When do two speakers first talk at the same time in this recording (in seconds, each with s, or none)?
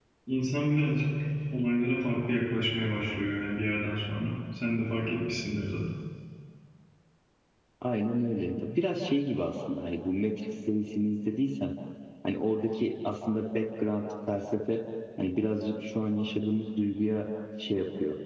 none